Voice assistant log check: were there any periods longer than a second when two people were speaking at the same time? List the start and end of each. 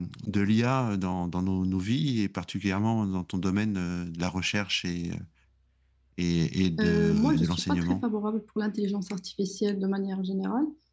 6.8-8.0

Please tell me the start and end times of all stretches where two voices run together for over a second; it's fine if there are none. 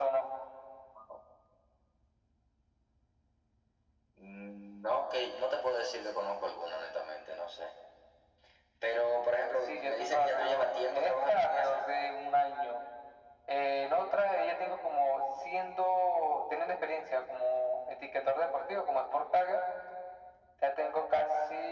9.7-11.9

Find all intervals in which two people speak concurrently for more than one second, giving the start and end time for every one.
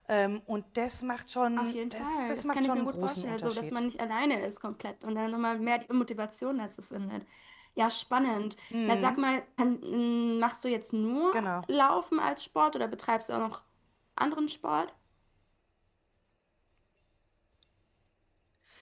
1.6-3.7

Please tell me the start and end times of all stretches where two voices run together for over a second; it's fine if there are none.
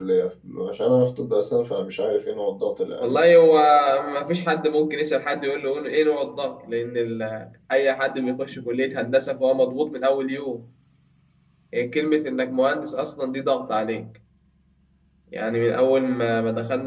none

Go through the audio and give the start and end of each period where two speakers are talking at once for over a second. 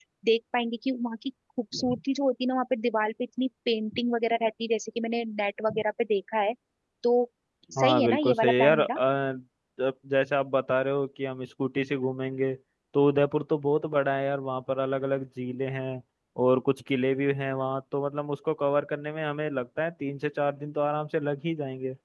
7.8-9.0

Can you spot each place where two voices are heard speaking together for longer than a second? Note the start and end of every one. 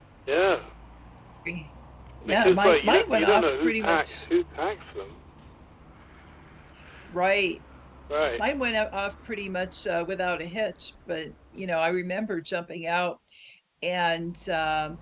2.2-4.2

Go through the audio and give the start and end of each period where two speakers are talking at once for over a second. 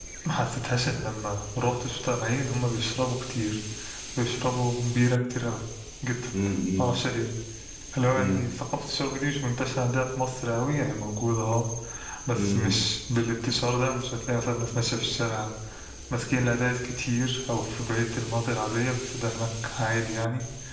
none

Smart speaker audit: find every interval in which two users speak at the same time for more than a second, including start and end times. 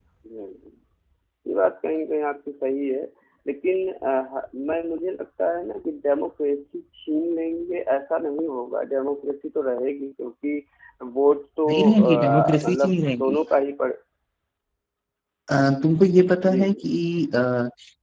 11.7-13.3

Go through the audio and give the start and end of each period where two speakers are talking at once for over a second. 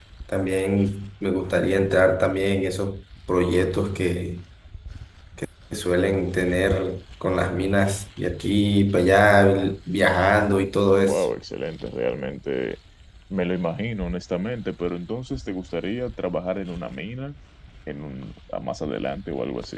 none

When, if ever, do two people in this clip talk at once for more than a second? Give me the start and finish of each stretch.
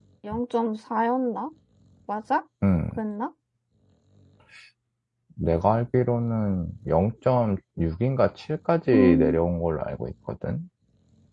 none

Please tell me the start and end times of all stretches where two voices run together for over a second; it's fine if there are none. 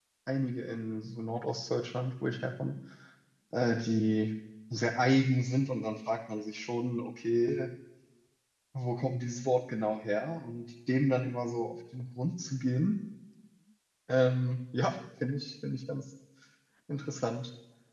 none

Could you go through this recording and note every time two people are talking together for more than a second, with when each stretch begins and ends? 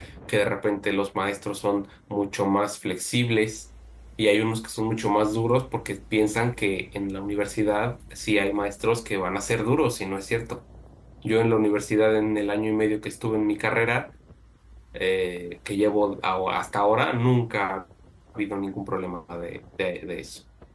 none

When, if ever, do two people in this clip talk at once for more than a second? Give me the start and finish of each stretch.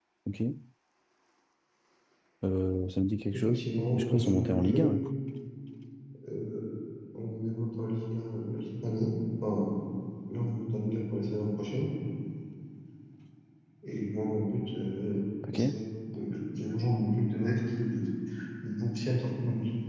3.3-4.9

